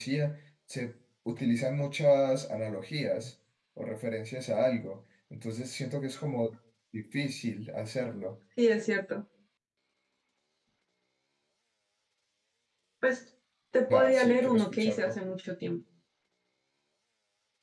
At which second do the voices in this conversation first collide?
13.9 s

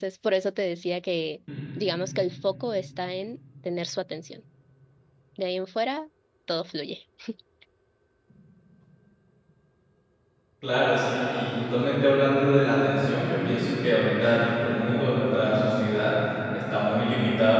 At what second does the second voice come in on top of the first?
none

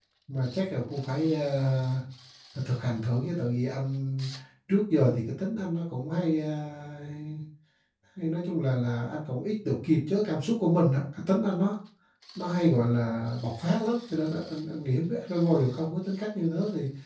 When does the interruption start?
none

